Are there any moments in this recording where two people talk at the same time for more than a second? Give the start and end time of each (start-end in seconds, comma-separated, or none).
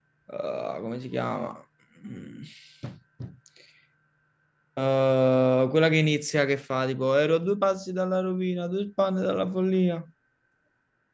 none